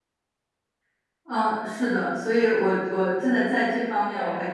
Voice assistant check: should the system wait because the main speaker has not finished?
Yes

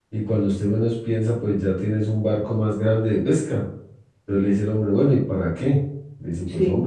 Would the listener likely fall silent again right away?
Yes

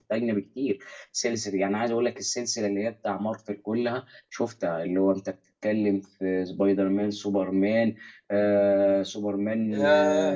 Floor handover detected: Yes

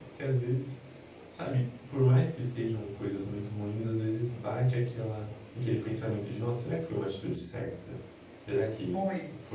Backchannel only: No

